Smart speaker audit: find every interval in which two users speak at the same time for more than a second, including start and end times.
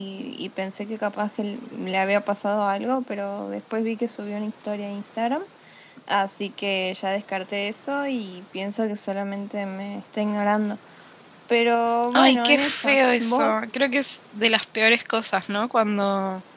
12.1-13.5

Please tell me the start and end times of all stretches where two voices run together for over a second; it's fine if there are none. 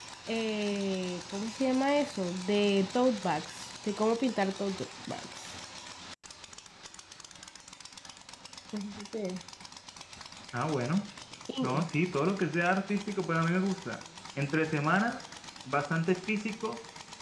none

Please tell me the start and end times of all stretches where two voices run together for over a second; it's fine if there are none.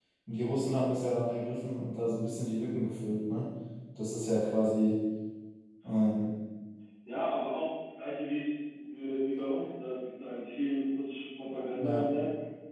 none

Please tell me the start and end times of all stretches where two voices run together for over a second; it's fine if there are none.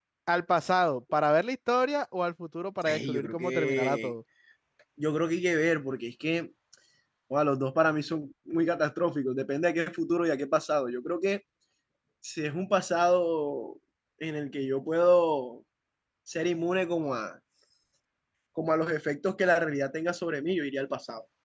2.9-4.1

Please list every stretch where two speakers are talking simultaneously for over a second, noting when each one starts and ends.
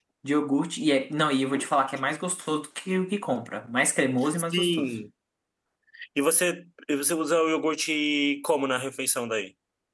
none

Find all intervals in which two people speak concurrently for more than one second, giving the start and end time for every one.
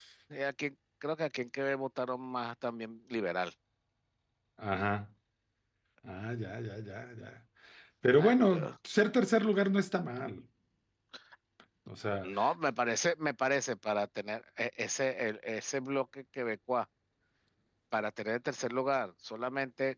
none

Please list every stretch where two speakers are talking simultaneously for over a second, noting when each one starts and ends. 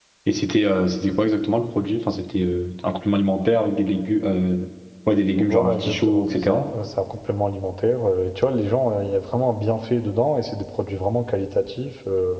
5.4-6.7

